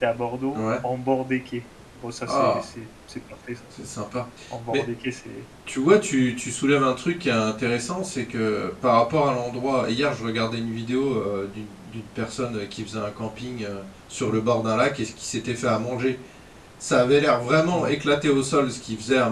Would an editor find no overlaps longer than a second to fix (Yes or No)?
Yes